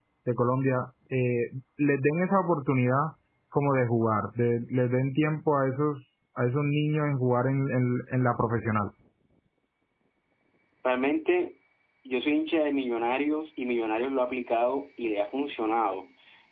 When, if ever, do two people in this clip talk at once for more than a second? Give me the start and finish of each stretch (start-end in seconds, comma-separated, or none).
none